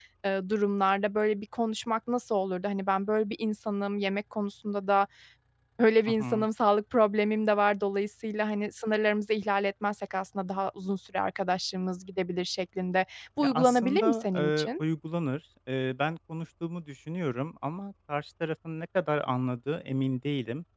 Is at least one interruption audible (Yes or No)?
Yes